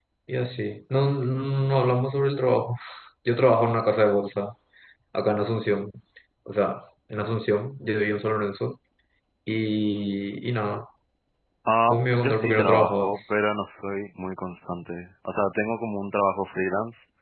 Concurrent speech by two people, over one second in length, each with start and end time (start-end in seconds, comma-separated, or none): 11.9-13.2